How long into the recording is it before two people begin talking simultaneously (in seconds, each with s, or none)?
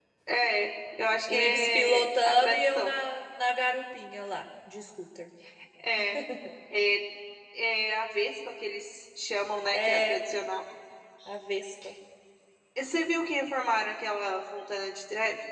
1.3 s